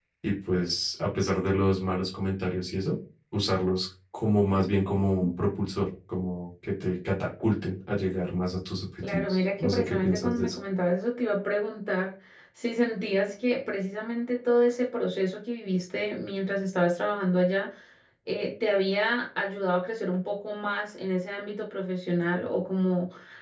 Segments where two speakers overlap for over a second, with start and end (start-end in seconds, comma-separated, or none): 9.0-10.5